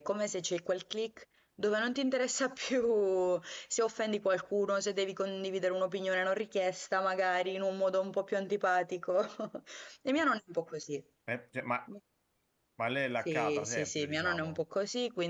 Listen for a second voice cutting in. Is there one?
Yes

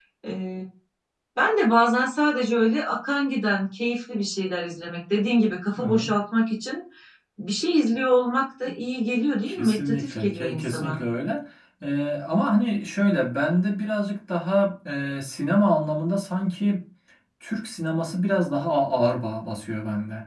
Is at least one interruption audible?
Yes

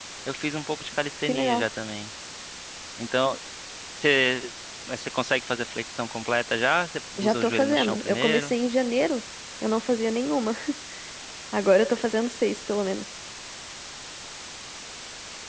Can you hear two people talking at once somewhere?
Yes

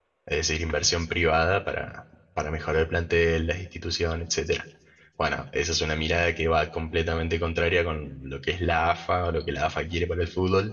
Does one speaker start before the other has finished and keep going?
No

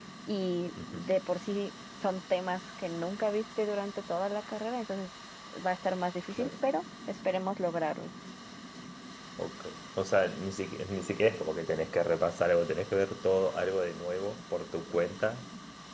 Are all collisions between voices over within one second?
Yes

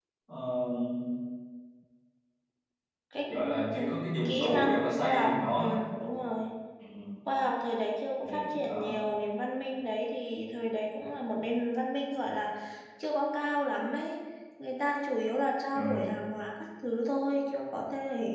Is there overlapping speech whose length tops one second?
Yes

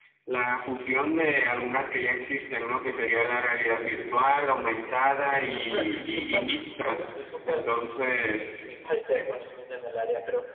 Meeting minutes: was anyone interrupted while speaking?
Yes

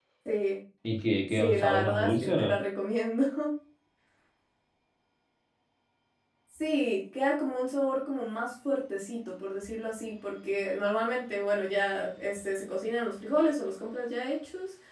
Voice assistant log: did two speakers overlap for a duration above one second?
Yes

